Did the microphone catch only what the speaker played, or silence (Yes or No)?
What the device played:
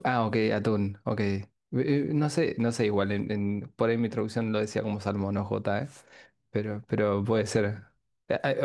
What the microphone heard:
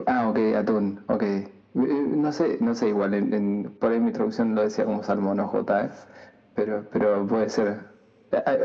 Yes